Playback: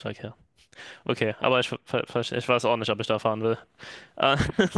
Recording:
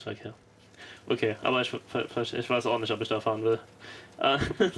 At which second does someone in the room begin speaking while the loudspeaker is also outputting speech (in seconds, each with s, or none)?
none